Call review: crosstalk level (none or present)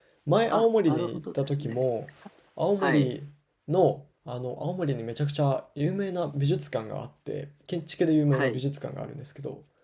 present